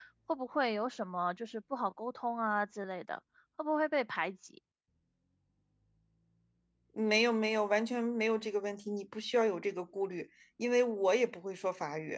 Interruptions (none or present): none